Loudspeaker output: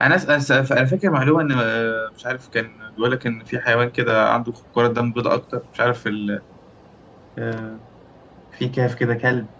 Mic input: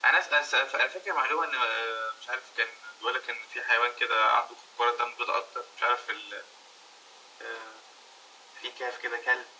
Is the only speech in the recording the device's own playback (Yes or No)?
Yes